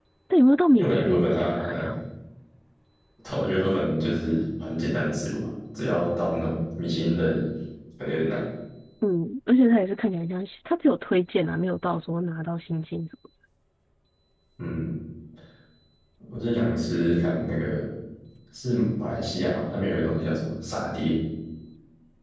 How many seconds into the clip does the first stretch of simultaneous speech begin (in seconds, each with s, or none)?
0.7 s